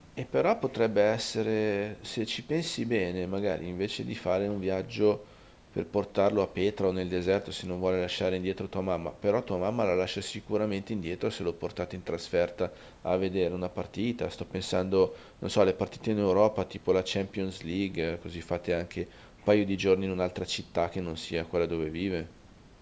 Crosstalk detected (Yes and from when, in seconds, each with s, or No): No